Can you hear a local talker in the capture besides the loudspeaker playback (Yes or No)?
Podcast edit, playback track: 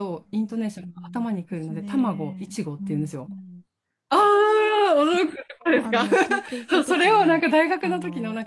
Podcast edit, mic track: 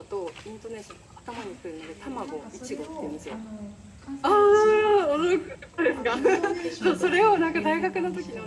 Yes